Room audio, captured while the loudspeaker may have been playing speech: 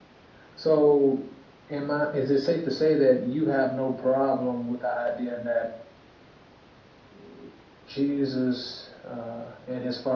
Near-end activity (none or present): present